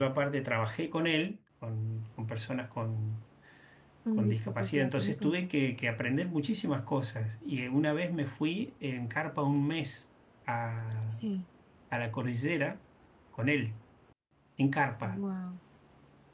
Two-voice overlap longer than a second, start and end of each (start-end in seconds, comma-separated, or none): 4.1-5.5